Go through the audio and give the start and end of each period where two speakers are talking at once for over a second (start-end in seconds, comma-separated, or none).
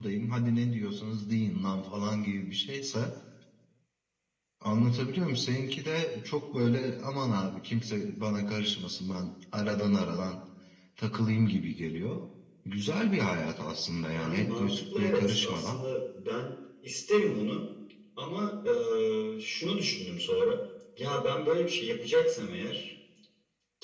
14.1-15.8